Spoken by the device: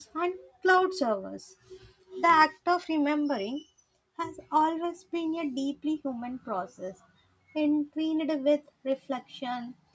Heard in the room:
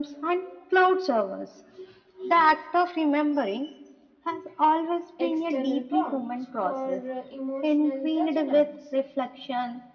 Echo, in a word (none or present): present